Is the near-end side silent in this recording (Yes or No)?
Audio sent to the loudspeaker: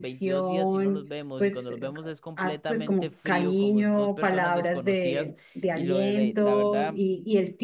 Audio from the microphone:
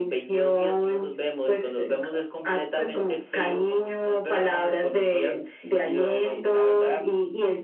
Yes